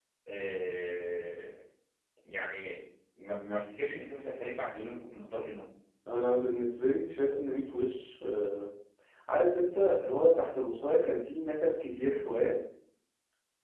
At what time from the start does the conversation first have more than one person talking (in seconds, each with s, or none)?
none